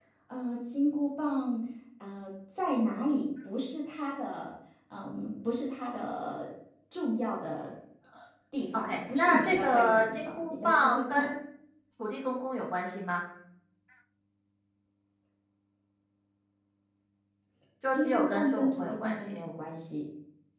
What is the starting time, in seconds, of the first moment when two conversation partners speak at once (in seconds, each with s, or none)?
8.7 s